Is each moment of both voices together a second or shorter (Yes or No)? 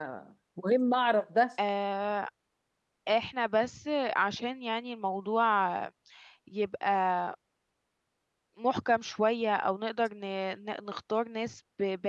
Yes